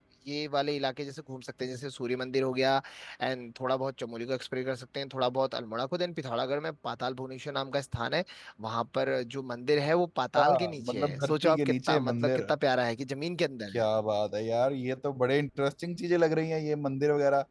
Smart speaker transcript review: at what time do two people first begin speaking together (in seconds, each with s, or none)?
10.4 s